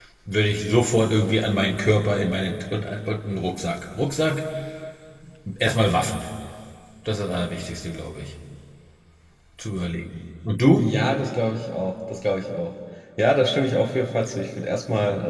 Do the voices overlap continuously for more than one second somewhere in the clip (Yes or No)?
No